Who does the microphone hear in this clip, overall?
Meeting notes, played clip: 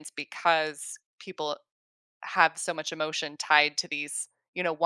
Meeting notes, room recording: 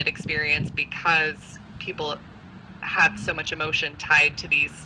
echo only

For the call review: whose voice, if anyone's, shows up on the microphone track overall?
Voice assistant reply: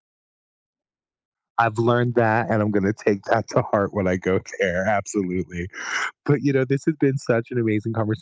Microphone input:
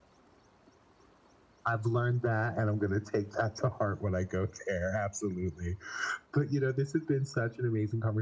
echo only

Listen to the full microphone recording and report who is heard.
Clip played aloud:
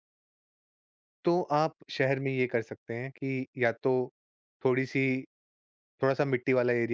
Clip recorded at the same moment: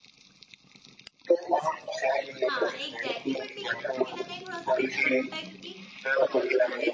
both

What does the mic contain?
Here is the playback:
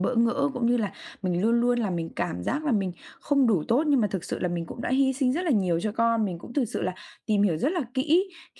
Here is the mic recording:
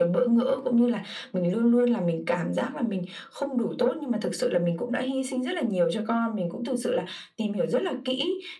echo only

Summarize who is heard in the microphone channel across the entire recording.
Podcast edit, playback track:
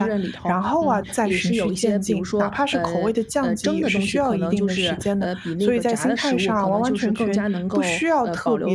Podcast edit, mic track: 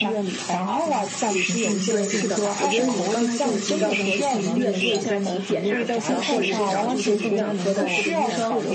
both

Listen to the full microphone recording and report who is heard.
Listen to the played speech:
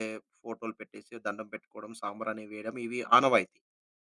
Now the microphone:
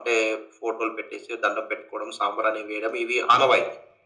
echo only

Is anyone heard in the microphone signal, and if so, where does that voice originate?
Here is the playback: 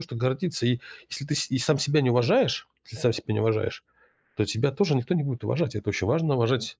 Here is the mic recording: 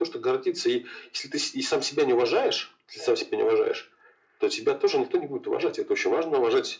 echo only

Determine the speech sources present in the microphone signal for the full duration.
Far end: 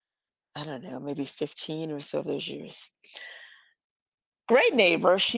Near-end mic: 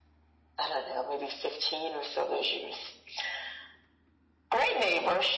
echo only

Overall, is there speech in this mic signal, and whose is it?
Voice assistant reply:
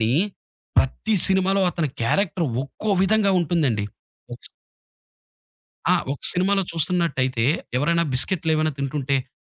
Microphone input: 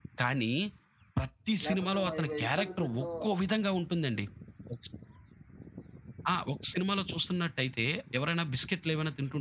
both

